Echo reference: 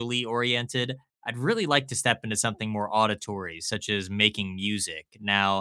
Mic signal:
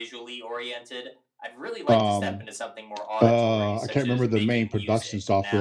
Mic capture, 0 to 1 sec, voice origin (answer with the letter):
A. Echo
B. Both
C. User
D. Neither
A